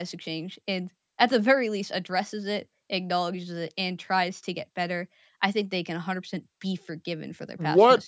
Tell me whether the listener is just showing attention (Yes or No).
No